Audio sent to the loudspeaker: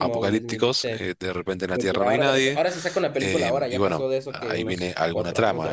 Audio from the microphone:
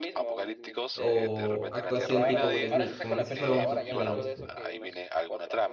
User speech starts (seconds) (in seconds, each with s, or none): 0.9 s